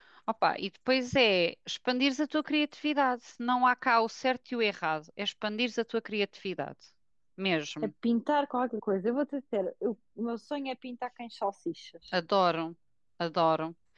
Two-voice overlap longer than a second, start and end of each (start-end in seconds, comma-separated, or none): none